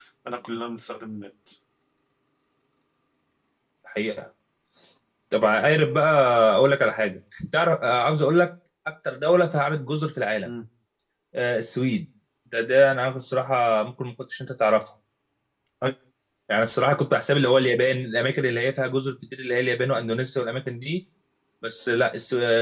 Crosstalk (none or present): none